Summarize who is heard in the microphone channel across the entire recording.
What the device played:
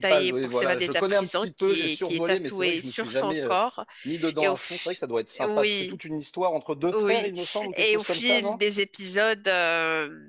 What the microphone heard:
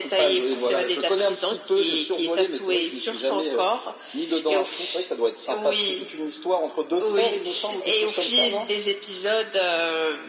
echo only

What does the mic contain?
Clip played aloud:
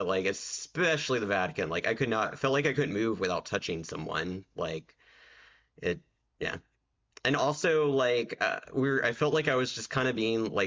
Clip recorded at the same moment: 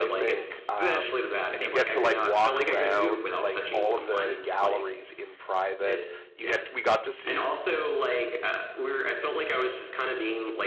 both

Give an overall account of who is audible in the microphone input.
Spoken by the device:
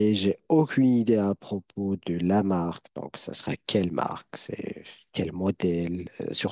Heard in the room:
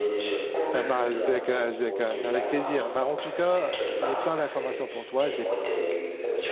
both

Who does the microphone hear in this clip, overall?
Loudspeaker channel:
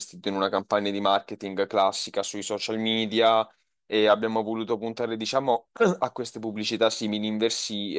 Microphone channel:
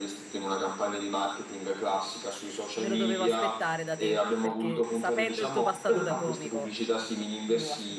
both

